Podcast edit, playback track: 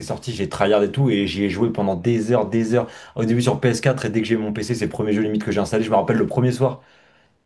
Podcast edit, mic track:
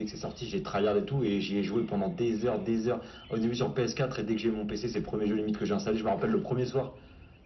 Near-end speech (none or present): none